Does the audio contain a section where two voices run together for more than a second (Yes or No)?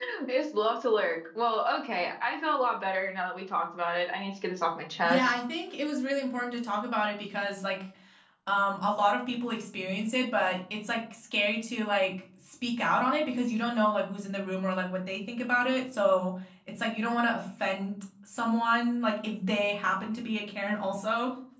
No